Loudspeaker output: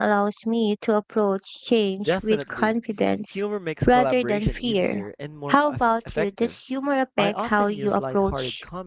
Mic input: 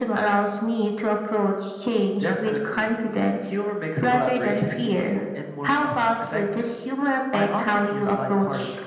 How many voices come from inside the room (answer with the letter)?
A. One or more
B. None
B